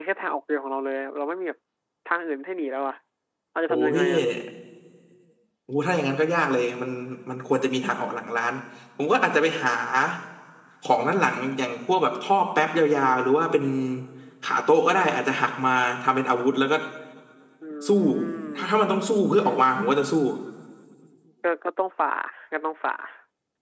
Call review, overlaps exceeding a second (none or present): none